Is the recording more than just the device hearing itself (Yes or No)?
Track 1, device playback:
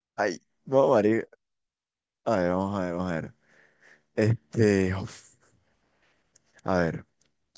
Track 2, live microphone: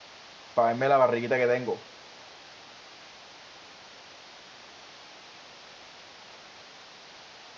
Yes